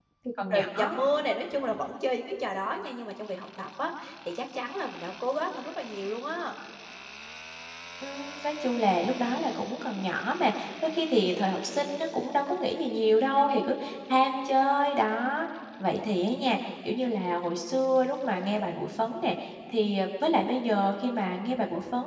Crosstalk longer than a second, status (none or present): none